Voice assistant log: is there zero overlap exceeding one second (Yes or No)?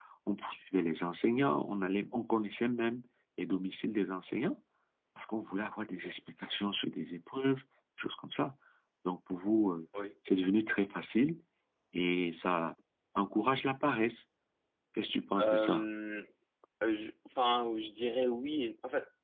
Yes